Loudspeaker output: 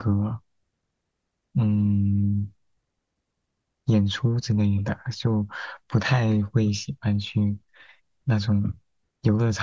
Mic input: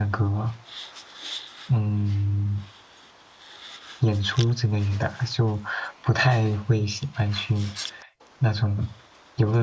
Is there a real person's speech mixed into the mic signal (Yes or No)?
No